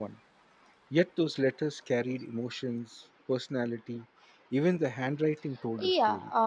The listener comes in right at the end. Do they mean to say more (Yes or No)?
Yes